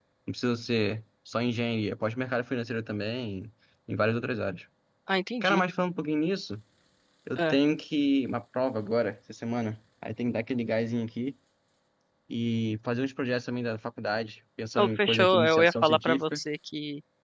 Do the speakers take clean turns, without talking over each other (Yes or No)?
No